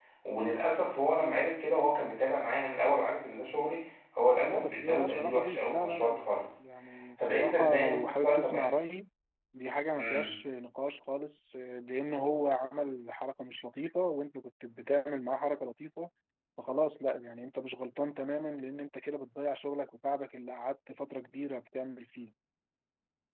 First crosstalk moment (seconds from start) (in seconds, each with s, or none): 4.4 s